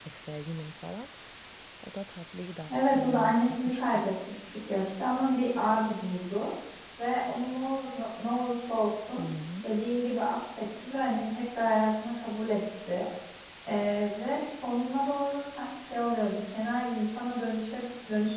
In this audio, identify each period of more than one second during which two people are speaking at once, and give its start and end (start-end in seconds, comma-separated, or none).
2.7-4.0